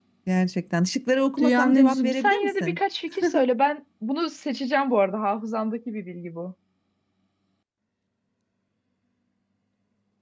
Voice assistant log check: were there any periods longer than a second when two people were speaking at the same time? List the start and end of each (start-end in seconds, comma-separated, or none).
1.4-2.8